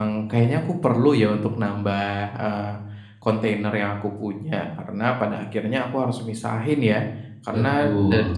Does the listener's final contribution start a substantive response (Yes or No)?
No